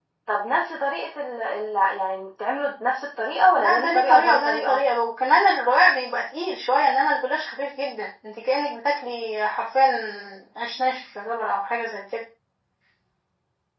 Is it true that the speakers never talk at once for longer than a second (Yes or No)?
No